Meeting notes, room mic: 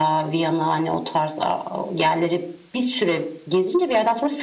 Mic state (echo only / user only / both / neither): echo only